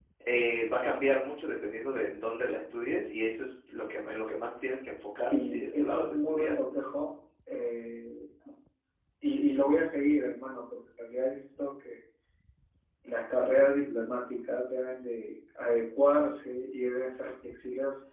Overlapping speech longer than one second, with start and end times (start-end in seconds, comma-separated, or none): 5.3-6.5